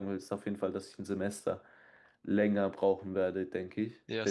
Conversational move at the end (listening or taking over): taking over